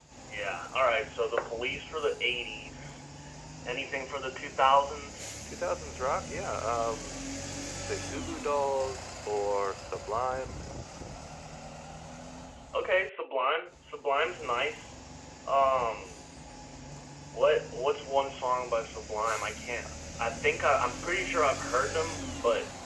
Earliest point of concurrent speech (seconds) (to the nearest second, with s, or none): none